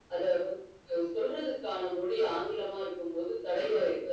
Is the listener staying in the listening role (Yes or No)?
No